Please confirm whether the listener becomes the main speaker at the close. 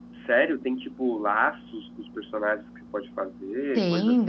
Yes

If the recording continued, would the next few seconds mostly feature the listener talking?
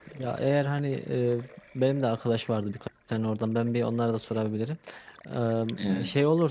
No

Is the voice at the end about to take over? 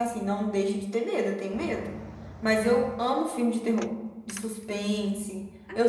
Yes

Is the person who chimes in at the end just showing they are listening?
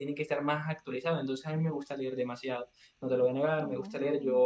Yes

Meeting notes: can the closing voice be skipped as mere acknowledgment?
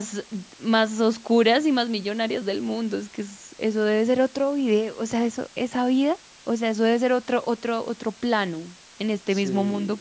Yes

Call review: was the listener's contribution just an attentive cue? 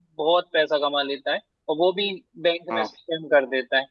Yes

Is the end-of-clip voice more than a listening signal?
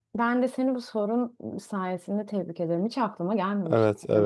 Yes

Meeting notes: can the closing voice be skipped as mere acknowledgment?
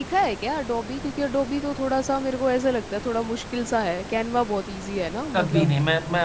No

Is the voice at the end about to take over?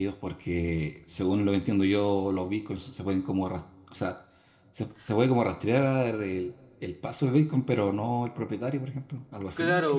Yes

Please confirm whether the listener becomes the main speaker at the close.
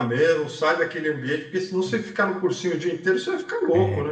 Yes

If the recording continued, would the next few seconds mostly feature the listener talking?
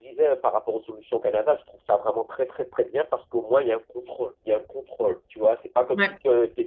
No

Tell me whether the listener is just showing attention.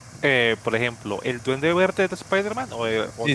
No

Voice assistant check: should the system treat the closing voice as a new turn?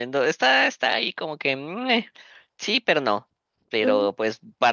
No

